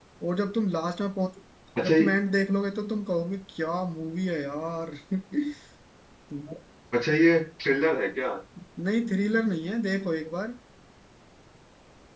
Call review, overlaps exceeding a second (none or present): none